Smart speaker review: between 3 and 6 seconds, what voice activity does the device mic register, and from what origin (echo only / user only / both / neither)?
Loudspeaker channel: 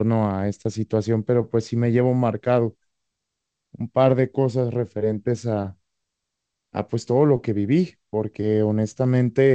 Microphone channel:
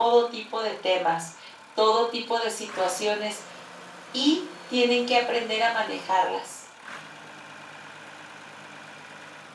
user only